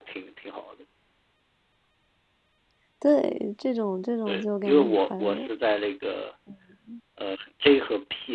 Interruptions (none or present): present